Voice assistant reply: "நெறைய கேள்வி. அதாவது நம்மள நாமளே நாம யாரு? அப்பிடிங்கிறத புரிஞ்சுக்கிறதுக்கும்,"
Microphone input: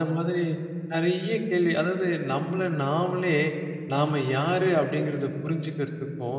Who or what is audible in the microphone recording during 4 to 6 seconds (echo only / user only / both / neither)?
echo only